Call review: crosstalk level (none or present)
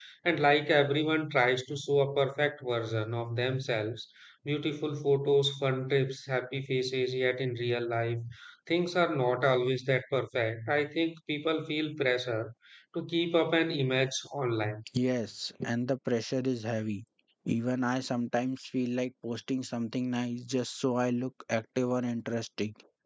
none